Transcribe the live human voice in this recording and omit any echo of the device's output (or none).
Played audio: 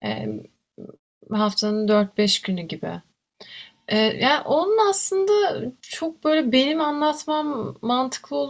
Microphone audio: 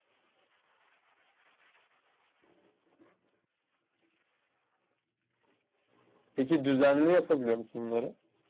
Peki düzenli yapabiliyor musun bunları?